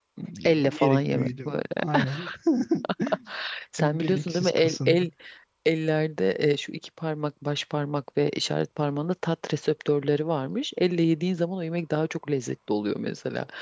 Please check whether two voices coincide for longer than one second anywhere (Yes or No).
Yes